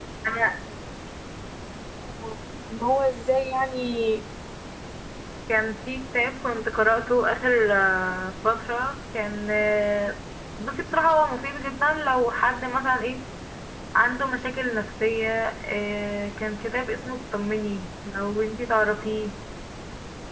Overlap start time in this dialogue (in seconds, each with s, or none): none